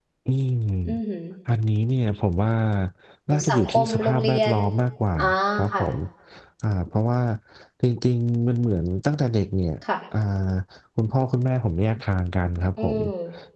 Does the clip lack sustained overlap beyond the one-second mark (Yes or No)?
No